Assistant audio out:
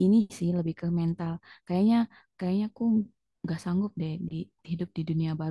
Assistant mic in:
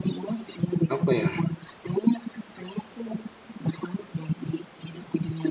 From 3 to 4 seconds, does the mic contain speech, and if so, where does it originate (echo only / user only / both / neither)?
echo only